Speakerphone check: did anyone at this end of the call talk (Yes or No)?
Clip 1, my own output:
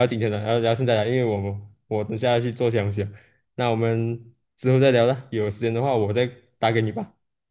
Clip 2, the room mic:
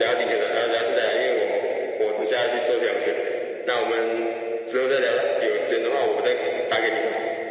No